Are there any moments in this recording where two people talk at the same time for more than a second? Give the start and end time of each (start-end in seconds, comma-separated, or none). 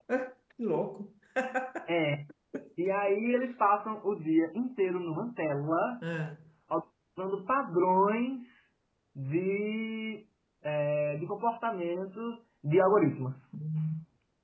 none